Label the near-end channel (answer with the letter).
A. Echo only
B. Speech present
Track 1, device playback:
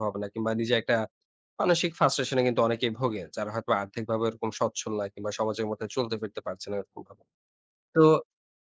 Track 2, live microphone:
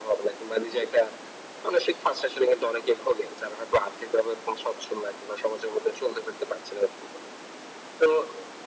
A